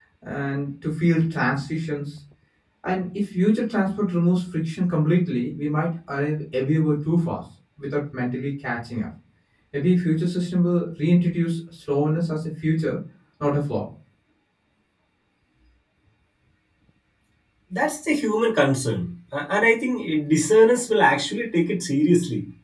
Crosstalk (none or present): none